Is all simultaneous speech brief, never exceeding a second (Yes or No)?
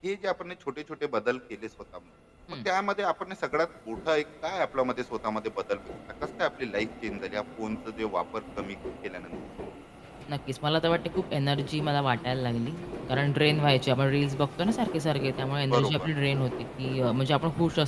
Yes